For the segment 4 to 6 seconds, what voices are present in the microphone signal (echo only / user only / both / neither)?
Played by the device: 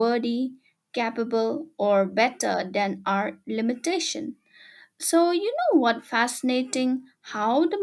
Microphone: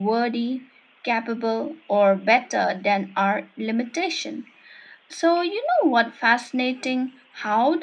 echo only